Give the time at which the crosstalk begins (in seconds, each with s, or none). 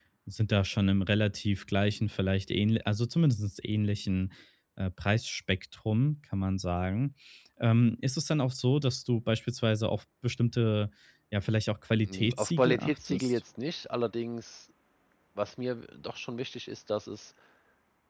12.0 s